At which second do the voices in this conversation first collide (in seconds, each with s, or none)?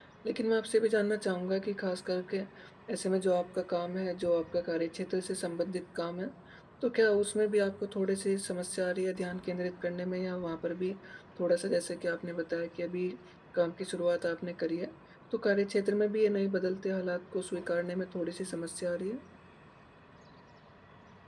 none